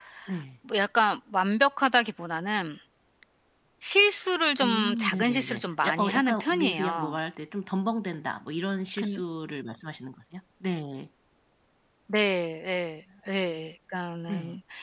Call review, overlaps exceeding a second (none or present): present